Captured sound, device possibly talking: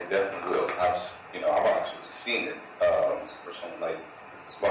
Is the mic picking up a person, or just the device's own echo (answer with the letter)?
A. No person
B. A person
A